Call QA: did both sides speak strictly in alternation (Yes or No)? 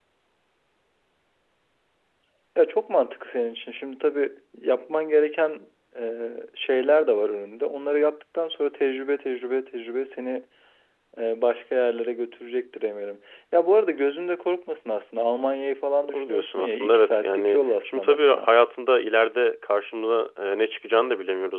No